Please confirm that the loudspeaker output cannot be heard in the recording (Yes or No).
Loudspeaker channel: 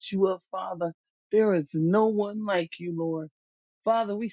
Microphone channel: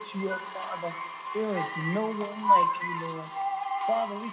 No